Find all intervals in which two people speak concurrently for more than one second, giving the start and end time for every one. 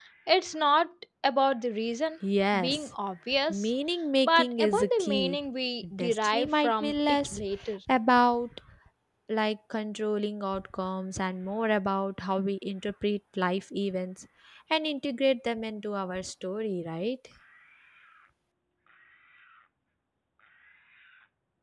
4.2-5.5, 6.0-7.4

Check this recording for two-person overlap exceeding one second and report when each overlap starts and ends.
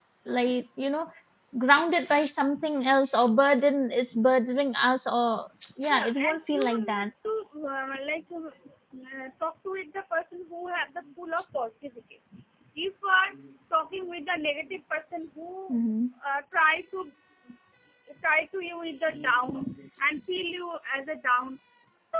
5.9-7.1

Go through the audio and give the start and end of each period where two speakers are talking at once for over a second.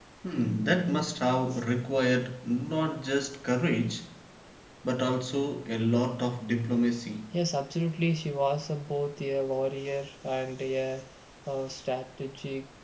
none

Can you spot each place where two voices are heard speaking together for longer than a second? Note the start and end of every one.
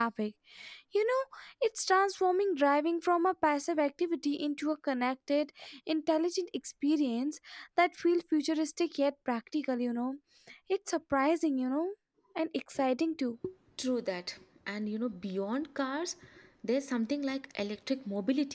none

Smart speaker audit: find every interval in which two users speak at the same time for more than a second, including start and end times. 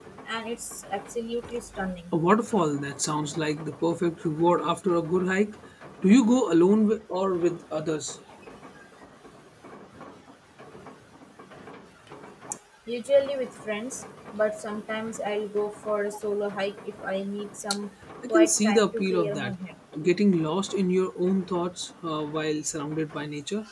18.3-19.5

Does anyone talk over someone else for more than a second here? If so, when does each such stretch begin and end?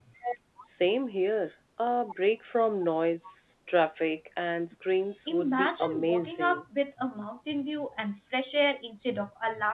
5.3-6.6

